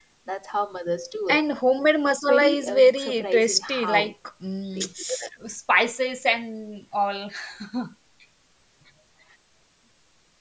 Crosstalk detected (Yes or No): Yes